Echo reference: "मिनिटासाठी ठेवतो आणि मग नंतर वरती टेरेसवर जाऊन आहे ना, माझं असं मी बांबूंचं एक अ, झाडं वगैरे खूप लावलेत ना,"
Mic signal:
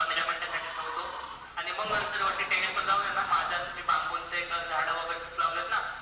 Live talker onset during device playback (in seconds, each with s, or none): none